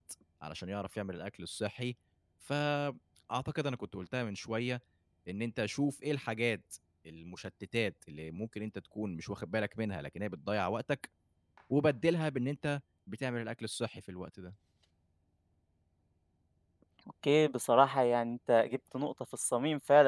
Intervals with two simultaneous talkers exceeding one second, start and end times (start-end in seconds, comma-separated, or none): none